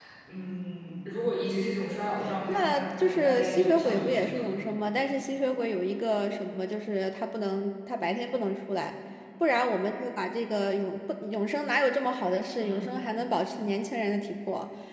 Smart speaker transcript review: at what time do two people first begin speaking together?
2.5 s

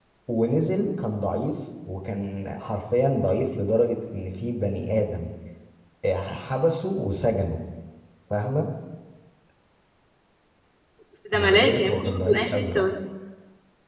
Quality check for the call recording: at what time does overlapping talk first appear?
11.3 s

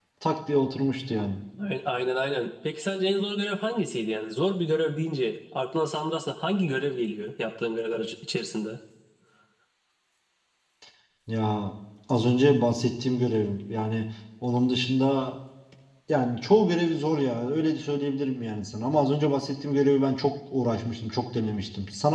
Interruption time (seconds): none

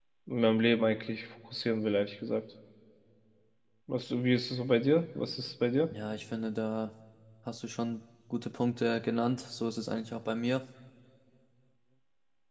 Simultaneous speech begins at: none

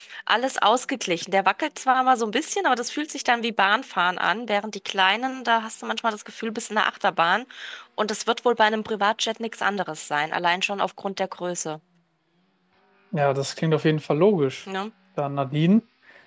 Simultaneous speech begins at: none

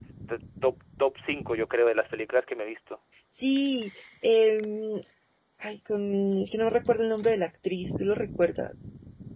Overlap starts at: none

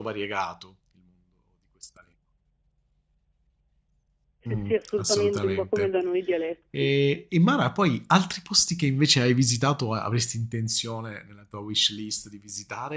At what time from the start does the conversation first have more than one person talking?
4.5 s

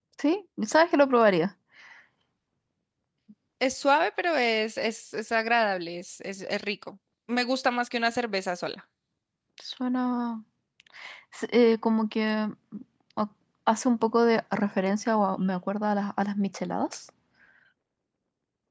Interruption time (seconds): none

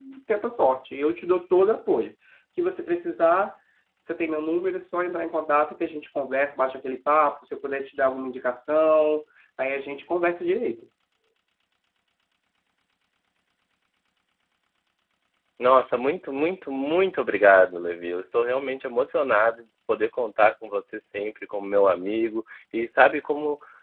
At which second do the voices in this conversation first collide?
none

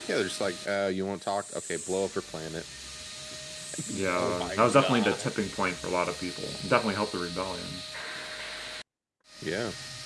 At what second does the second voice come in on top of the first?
3.9 s

